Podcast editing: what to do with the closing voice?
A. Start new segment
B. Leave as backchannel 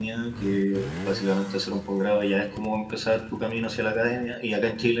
B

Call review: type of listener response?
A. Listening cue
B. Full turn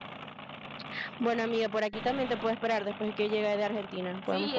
B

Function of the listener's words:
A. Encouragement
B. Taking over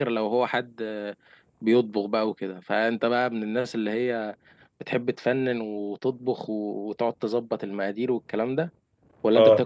B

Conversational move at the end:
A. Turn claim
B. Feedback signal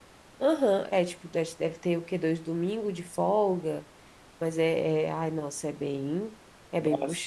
A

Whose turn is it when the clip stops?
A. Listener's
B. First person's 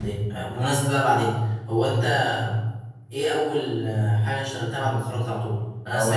B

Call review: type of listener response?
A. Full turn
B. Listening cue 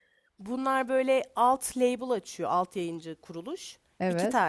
B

